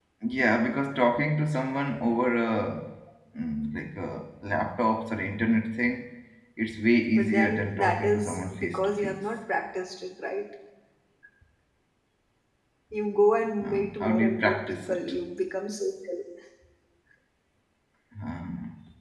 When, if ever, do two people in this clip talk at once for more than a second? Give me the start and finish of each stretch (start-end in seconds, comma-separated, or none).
7.1-9.2, 13.6-15.2